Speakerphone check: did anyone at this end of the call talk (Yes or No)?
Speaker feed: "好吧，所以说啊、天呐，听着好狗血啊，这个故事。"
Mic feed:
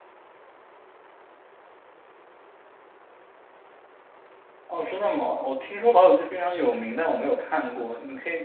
Yes